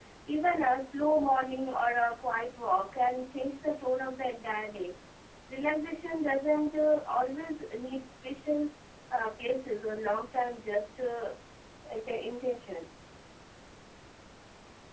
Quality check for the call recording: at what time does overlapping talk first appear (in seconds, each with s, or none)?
none